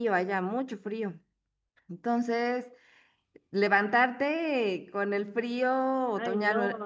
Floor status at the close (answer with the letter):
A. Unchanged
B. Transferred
B